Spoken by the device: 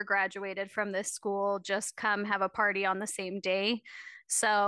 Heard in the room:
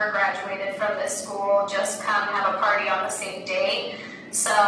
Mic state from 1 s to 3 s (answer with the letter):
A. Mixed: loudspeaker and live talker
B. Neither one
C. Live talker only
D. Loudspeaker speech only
D